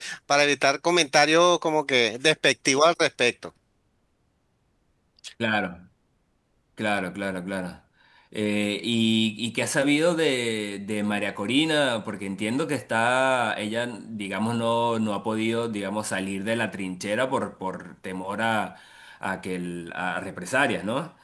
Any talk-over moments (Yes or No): No